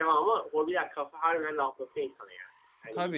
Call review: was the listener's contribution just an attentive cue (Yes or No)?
No